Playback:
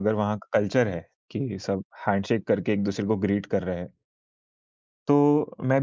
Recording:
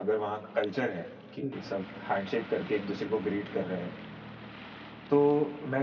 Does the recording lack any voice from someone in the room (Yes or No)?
Yes